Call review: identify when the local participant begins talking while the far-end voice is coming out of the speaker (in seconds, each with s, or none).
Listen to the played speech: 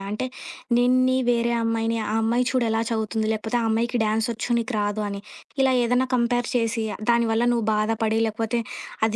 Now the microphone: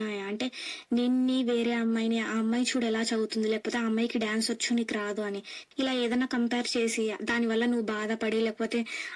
none